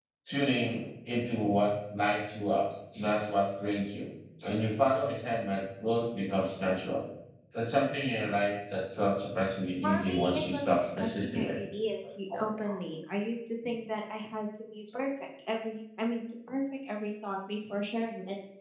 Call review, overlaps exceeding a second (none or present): present